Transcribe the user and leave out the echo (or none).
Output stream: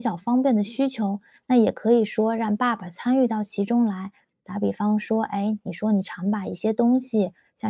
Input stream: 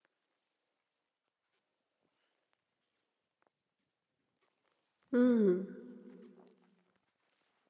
嗯。